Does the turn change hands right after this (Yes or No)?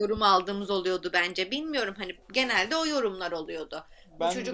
No